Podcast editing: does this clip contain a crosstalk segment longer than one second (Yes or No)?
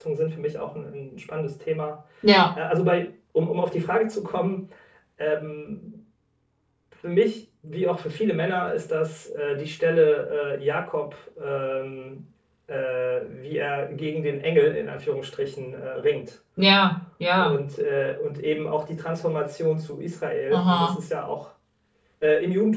No